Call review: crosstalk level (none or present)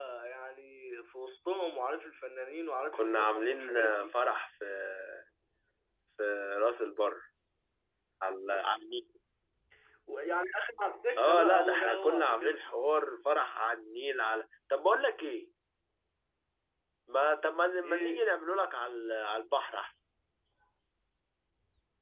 present